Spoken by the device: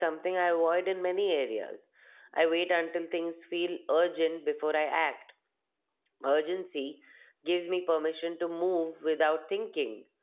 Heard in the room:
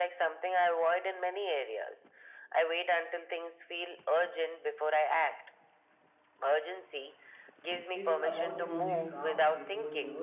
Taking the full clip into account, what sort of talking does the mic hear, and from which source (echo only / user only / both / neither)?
both